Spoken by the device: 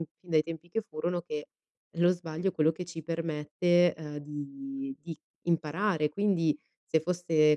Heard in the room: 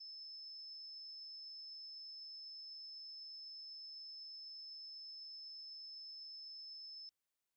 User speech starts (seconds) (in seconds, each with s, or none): none